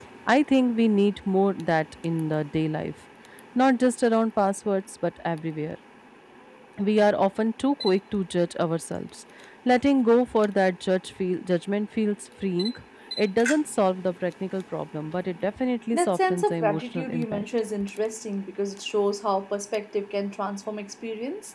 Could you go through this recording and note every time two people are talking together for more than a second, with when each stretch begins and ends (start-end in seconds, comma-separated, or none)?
15.9-17.4